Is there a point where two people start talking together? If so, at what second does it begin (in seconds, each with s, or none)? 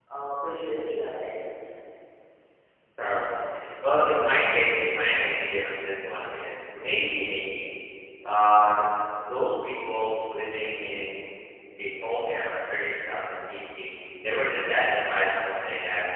none